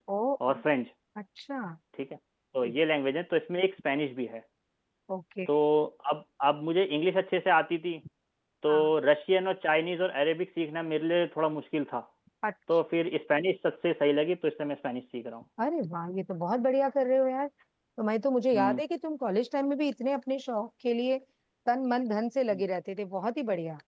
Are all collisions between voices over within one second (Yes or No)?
Yes